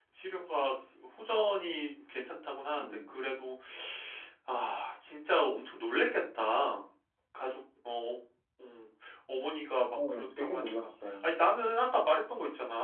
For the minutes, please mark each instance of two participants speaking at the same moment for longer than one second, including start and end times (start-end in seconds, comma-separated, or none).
9.9-11.3